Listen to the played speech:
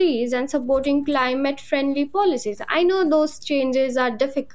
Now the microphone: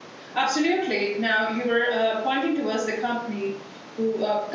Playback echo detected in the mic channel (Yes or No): No